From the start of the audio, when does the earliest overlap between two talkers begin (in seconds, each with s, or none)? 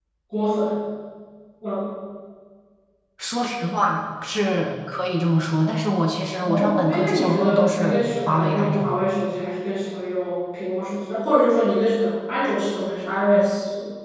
6.5 s